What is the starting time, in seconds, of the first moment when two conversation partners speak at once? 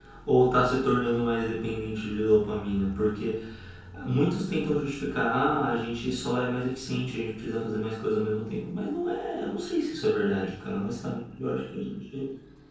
none

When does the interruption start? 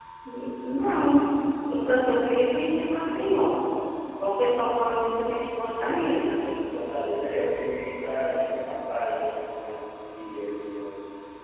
none

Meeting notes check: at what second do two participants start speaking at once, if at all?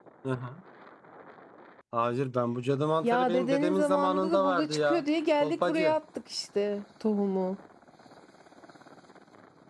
3.0 s

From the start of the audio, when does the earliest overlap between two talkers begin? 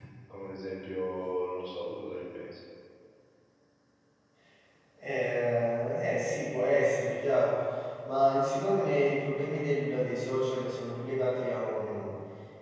none

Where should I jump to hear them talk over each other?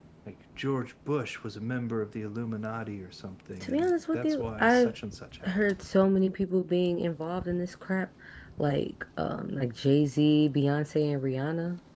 3.6 s

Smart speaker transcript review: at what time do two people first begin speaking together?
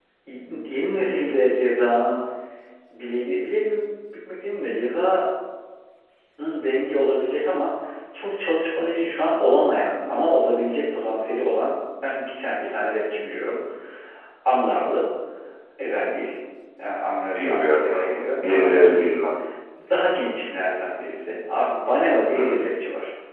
17.4 s

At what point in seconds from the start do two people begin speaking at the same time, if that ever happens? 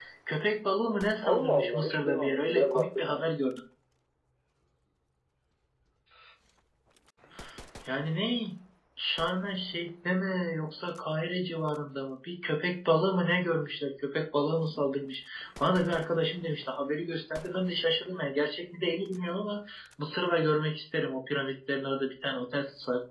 1.2 s

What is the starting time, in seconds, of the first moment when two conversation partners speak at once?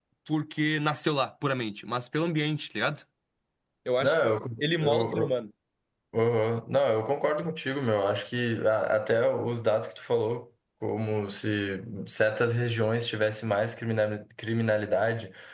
4.0 s

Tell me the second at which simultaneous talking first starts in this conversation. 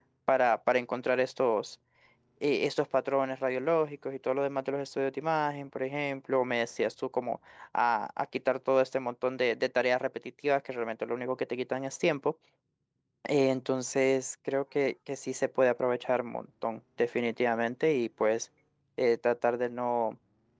none

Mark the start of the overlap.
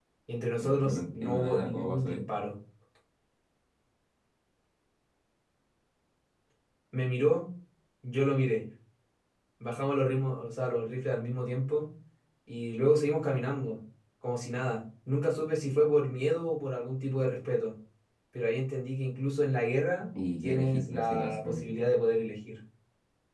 0.6 s

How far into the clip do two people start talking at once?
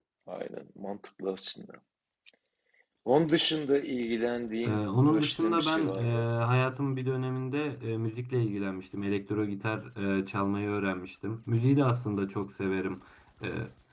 4.6 s

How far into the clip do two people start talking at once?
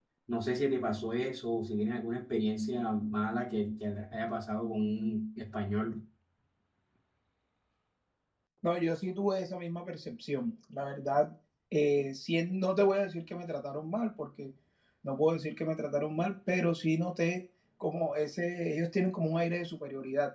none

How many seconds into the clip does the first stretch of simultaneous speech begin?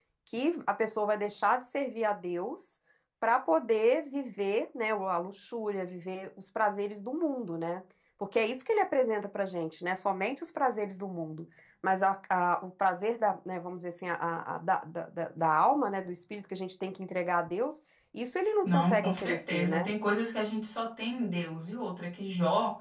18.6 s

